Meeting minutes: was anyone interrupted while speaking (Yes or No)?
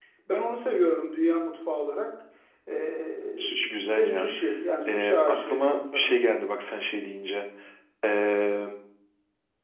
Yes